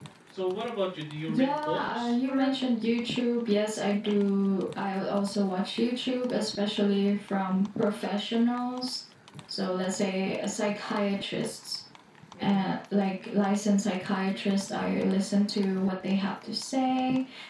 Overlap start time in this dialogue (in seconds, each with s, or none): 1.3 s